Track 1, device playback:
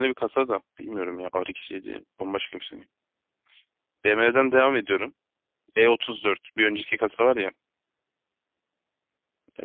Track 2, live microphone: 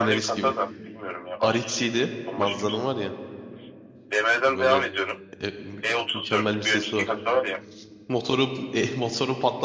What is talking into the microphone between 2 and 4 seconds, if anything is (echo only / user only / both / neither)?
both